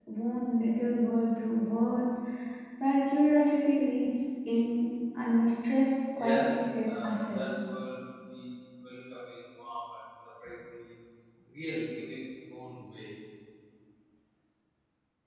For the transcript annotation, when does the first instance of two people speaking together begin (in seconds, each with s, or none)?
6.2 s